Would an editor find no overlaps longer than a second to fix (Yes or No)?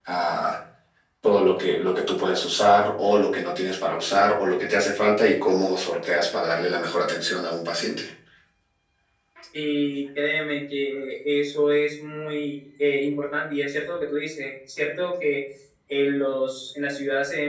Yes